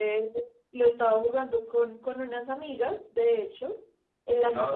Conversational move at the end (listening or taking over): listening